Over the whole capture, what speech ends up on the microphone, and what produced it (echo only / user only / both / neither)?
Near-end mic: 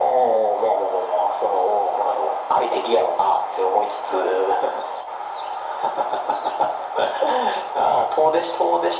echo only